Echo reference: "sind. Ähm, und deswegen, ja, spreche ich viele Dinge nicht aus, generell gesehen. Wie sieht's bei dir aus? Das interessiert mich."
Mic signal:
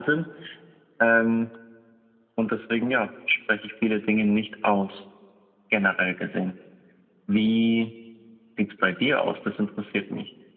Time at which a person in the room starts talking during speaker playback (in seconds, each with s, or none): none